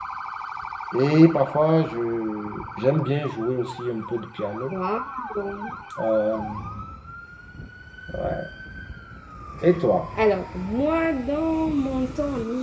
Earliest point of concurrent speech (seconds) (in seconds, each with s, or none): none